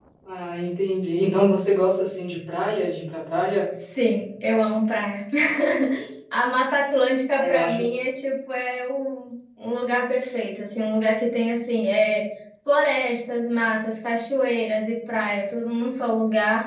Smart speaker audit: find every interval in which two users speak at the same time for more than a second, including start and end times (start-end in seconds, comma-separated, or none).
none